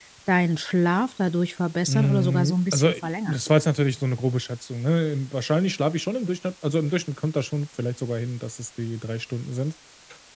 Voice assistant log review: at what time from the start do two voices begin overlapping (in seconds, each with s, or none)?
1.9 s